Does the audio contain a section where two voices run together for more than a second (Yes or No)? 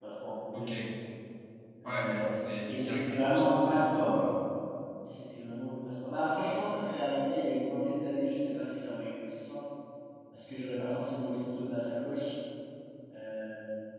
Yes